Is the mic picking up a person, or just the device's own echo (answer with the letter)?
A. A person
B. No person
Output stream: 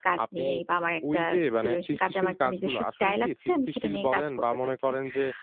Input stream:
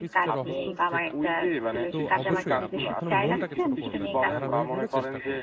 A